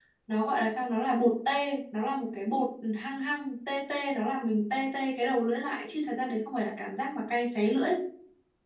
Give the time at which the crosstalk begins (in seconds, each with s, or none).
none